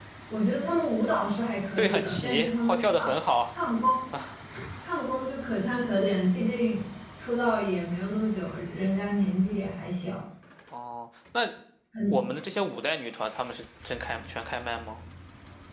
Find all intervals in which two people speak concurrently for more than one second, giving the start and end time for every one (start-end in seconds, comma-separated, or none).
1.8-3.1